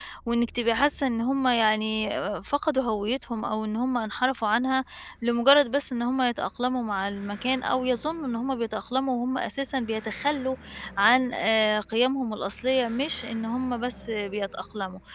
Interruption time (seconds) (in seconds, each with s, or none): none